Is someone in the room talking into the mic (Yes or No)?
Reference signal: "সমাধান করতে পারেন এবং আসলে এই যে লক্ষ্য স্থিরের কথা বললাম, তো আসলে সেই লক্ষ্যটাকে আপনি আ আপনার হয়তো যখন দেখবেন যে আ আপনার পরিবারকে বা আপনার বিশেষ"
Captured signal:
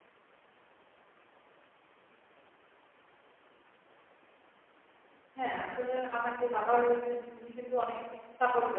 Yes